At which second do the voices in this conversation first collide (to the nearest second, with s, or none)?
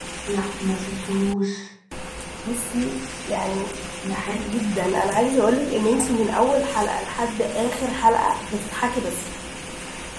none